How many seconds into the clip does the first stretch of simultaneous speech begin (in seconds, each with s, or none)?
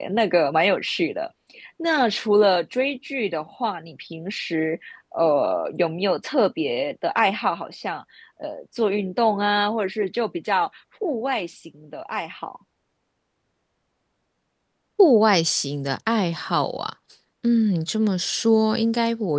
none